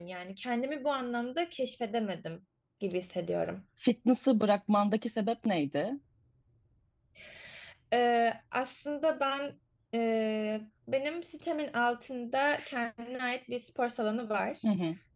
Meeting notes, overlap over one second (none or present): none